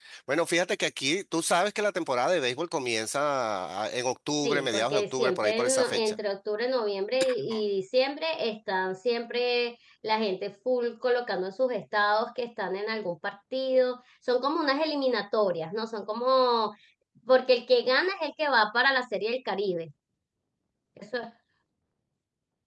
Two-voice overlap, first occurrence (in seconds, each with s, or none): 4.4 s